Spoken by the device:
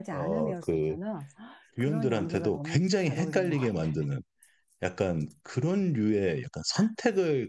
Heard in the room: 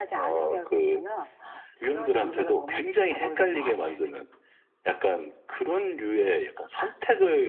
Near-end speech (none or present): none